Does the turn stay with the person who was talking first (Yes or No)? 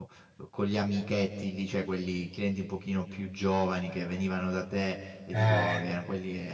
Yes